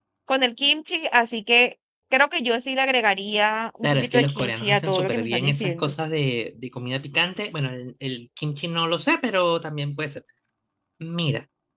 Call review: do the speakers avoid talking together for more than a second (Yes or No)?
No